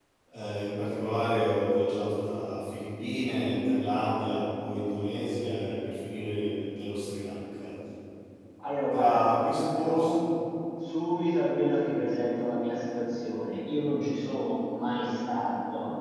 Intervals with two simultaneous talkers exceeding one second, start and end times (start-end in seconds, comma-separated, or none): 8.9-10.1